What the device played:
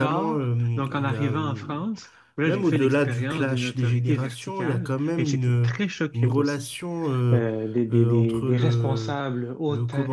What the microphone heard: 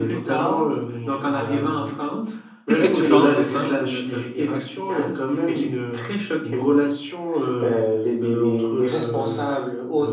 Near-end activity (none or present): present